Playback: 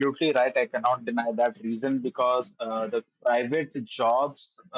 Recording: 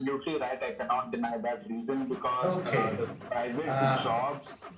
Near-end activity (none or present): present